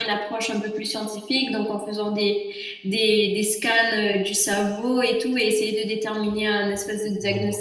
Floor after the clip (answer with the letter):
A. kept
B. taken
B